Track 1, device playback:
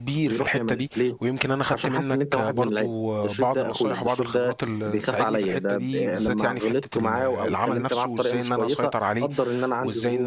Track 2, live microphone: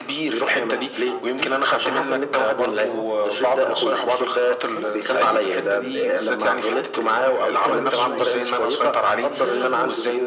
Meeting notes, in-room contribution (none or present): present